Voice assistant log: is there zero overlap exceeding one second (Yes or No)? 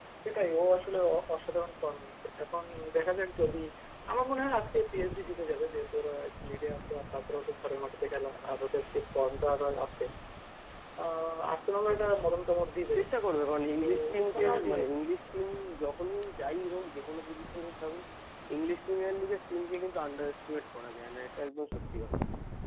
Yes